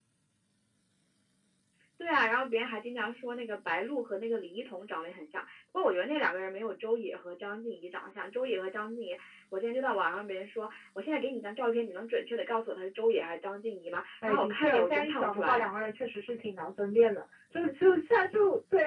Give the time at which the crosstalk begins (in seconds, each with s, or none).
14.2 s